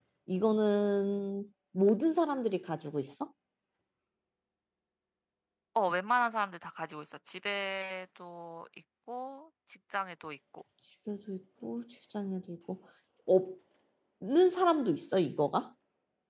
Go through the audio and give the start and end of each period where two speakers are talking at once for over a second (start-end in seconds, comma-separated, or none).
none